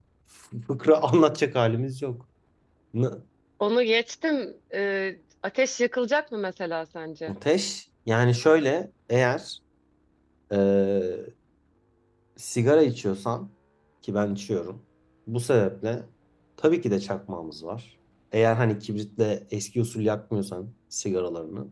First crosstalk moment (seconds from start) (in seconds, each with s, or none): none